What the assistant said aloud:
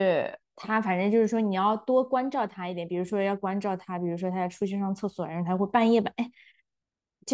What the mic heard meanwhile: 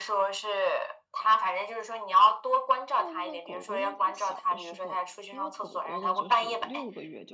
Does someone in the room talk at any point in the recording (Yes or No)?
Yes